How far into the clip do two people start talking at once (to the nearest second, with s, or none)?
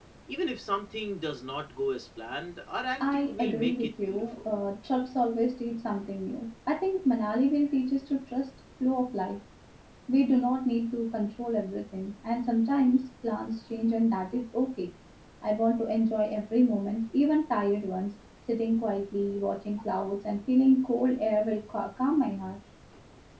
3 s